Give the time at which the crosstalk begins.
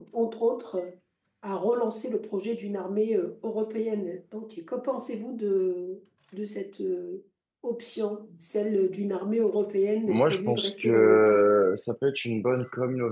10.1 s

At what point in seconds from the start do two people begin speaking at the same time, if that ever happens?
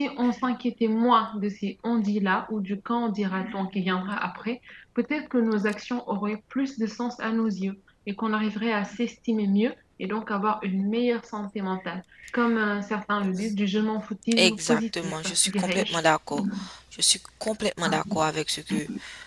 14.3 s

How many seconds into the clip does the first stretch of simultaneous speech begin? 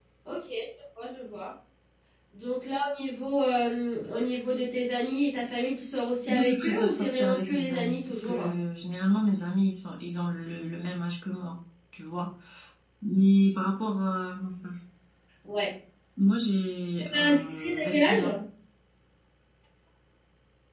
6.3 s

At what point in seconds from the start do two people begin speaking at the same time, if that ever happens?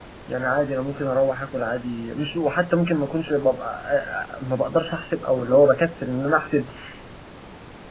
none

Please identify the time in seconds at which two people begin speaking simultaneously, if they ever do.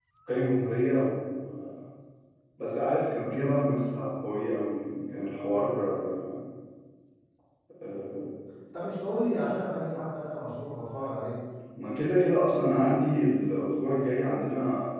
none

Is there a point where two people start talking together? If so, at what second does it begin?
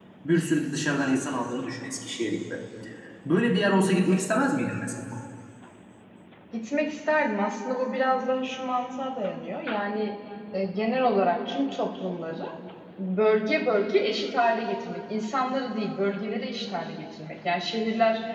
none

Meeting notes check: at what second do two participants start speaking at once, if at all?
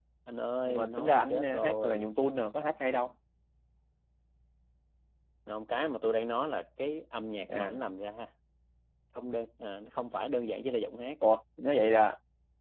0.6 s

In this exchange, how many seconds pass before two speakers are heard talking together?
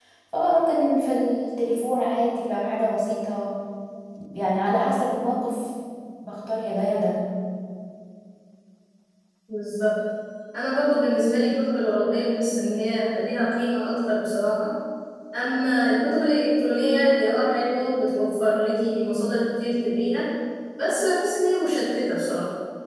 none

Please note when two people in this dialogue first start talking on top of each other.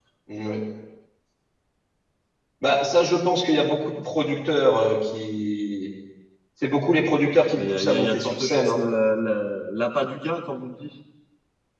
7.6 s

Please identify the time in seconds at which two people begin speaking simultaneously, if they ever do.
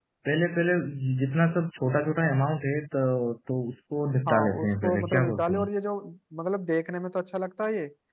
4.3 s

